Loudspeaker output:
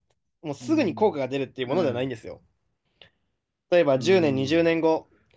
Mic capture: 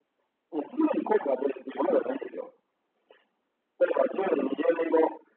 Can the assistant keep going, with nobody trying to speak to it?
Yes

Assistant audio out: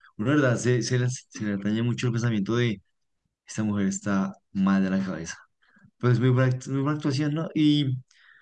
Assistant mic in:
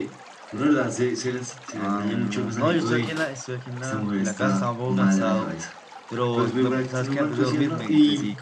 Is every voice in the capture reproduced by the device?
No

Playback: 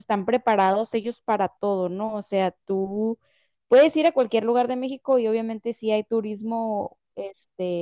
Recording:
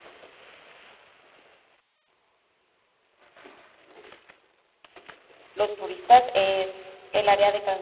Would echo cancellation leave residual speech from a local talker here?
Yes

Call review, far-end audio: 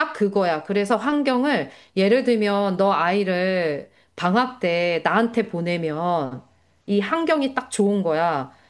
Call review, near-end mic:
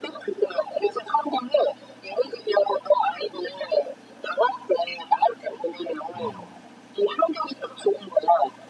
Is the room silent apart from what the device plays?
No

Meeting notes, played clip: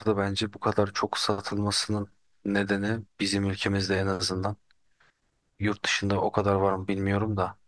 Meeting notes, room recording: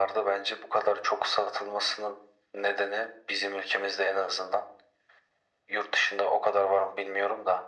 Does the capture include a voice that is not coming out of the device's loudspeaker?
No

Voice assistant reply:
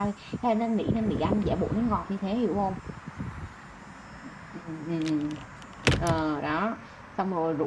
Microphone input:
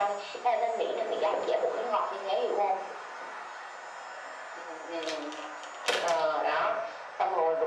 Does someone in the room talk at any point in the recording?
No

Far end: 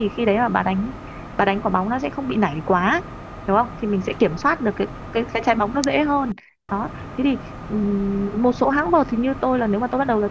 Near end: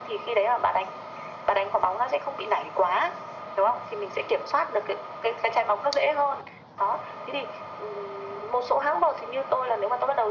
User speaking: No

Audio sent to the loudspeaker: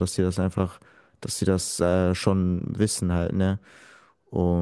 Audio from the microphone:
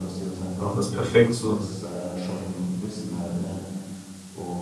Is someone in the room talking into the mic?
Yes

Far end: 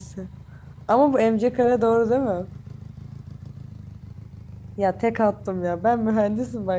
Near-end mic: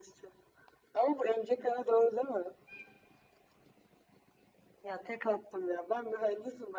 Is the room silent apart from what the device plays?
Yes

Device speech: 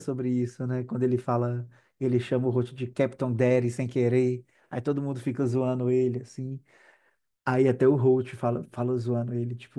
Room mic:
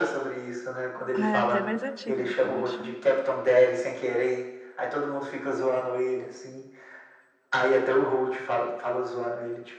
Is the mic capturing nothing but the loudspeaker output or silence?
No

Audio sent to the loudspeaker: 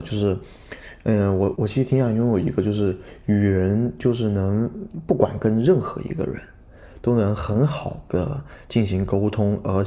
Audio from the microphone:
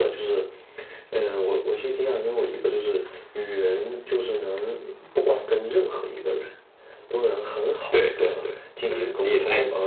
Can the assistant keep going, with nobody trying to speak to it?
No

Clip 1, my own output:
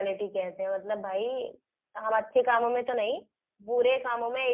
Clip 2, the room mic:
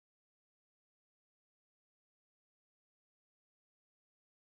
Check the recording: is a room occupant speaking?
No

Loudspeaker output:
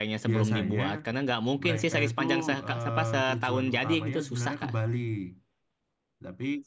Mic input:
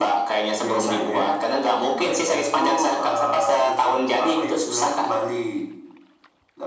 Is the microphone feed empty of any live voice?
Yes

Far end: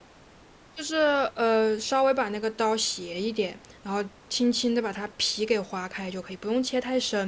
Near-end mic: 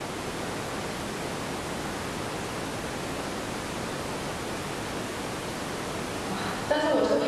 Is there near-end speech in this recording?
Yes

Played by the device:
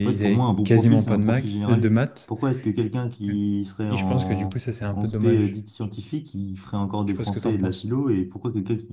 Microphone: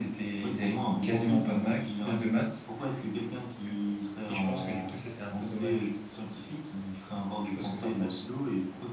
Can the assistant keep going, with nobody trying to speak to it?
Yes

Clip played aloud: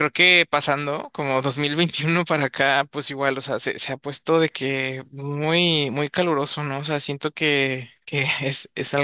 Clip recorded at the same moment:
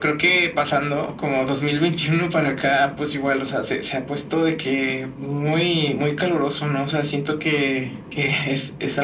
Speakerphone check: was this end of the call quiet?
Yes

